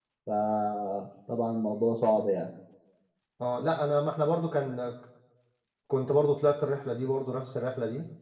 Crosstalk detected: No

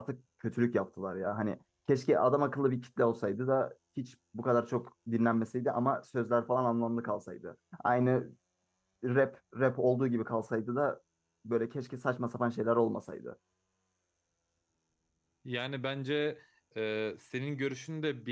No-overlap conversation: Yes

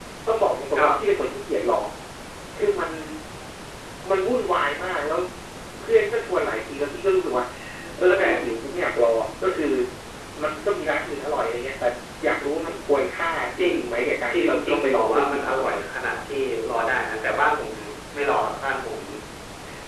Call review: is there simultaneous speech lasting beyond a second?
Yes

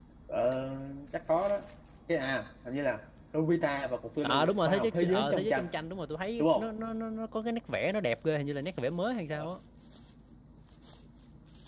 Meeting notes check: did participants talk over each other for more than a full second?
Yes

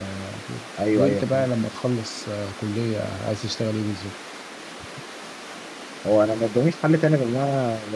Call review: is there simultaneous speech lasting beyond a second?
No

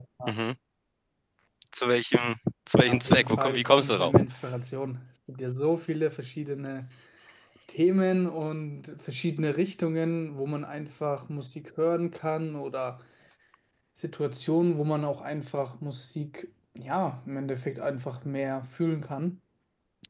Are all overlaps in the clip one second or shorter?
No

